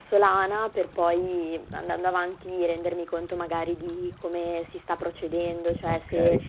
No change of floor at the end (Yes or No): Yes